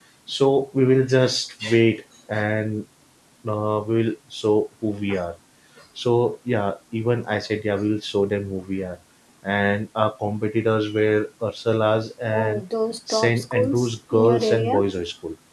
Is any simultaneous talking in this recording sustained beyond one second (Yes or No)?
Yes